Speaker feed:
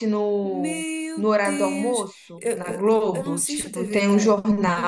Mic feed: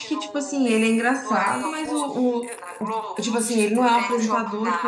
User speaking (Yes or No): Yes